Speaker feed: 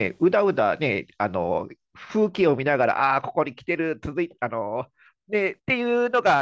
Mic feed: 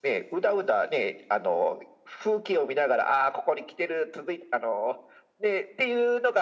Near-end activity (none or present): none